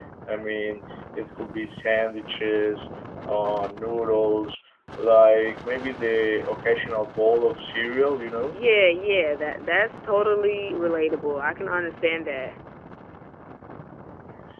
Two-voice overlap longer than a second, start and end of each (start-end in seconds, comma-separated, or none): none